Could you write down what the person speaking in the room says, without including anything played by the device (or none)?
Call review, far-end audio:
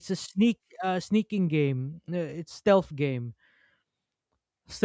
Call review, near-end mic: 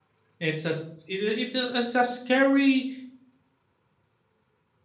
It's a s- it, i- it's a, it's a scary